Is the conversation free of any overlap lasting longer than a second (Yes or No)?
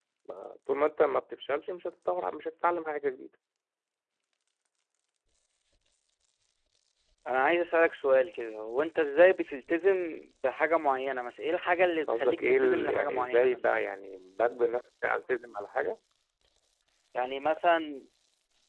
No